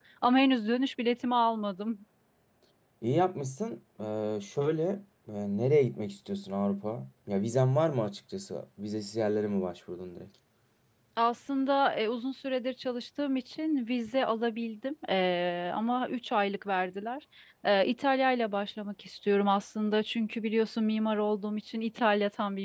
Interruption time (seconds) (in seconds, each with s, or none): none